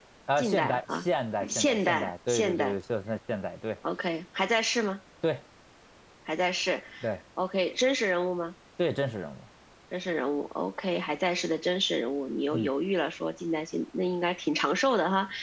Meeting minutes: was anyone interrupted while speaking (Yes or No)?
Yes